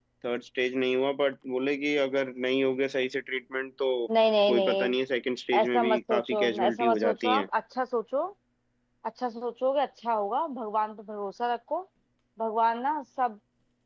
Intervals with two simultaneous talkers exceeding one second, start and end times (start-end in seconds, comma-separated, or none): 5.6-7.5